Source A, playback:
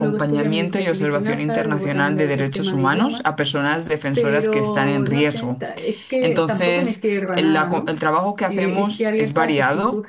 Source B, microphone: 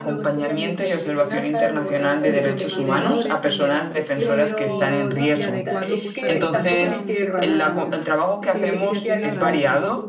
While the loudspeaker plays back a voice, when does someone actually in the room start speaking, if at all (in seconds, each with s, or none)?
2.2 s